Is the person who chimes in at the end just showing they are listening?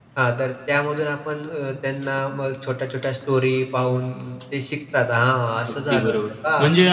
No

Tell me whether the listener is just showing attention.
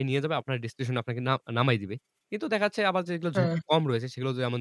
Yes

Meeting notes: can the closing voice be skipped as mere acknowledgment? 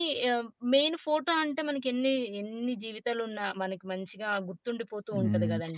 No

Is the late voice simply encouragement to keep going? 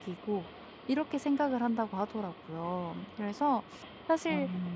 Yes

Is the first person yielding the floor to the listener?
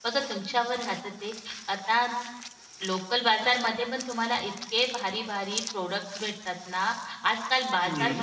No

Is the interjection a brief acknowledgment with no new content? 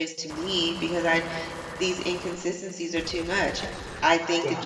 Yes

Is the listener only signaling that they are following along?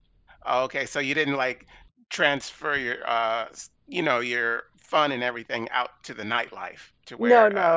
No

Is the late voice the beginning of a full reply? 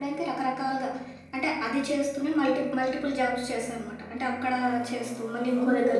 Yes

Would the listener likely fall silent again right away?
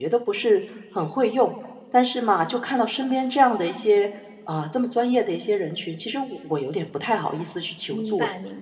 No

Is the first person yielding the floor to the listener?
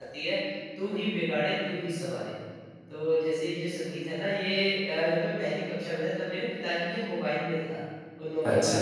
No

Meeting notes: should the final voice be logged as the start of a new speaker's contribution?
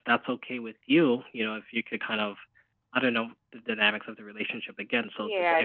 Yes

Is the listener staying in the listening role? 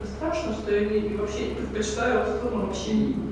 No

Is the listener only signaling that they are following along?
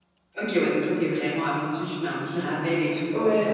No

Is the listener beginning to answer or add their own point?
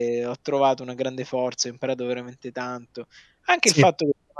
No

